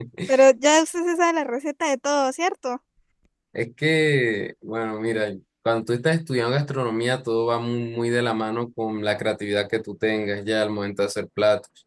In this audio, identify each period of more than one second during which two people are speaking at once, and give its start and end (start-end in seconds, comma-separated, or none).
none